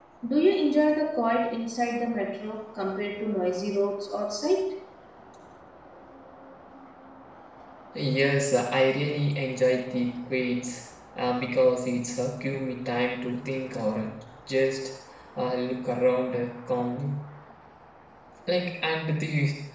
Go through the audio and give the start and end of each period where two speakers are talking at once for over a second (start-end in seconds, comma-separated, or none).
none